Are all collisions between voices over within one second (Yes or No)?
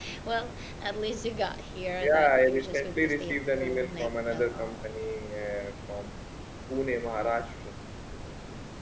No